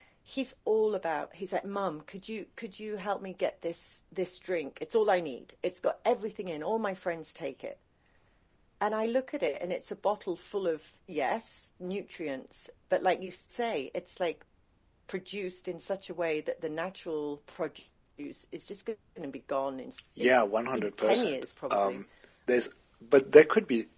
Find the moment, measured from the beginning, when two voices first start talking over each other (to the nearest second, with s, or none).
20 s